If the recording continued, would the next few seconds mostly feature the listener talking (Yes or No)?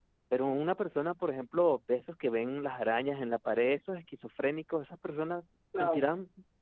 No